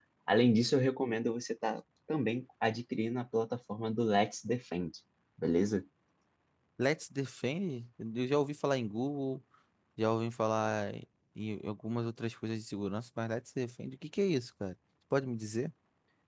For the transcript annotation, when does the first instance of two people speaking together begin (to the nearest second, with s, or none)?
none